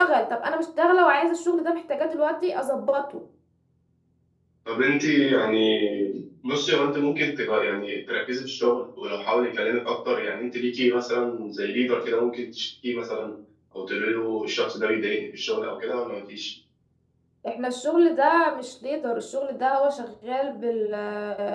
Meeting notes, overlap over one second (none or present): none